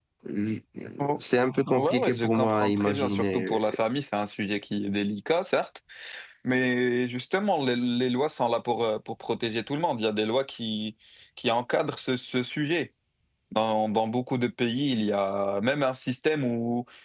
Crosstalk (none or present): present